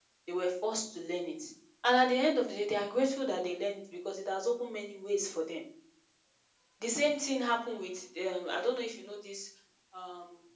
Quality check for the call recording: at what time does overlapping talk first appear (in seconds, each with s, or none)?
none